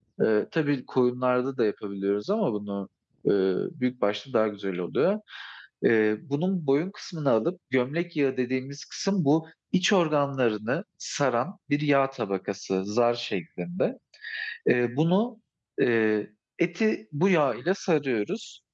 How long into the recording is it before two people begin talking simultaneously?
none

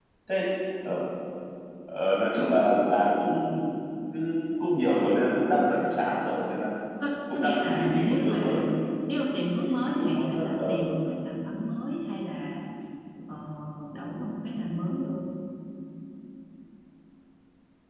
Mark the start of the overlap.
7 s

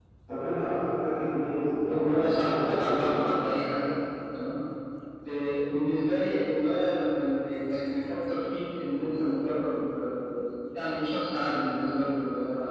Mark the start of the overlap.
2 s

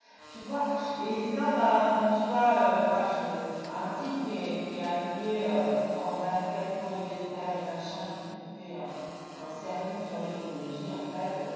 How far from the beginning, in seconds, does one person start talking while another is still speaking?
none

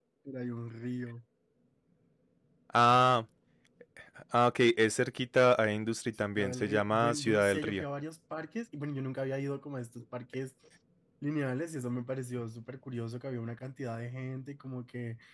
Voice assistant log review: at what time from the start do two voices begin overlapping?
6 s

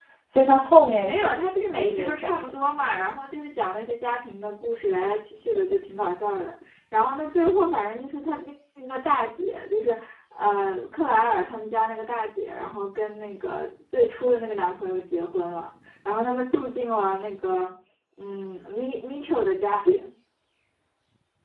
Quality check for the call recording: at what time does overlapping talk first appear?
1 s

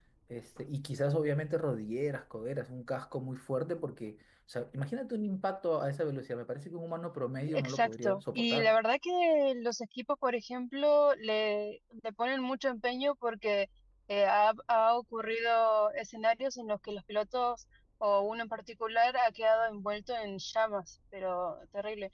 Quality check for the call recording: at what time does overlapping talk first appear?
7 s

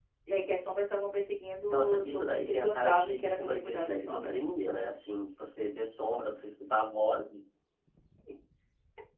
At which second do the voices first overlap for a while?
2 s

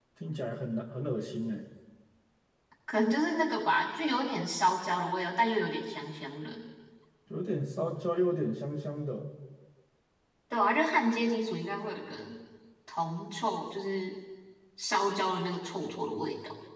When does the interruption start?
none

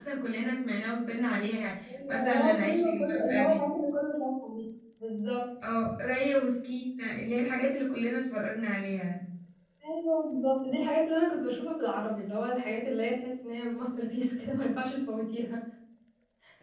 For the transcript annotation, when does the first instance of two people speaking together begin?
2 s

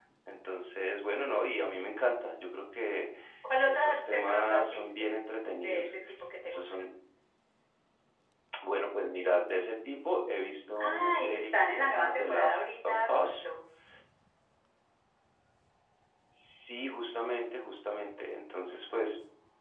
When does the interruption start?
4 s

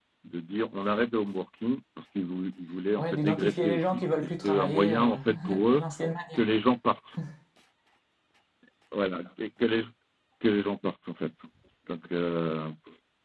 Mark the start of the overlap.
3 s

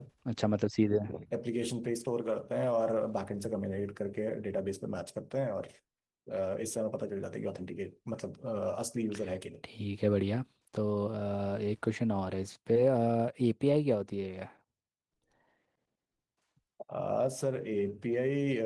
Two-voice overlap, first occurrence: none

